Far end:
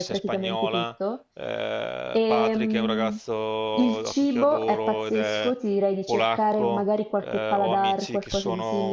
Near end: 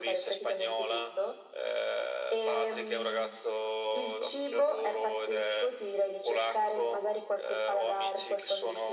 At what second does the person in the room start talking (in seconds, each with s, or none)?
none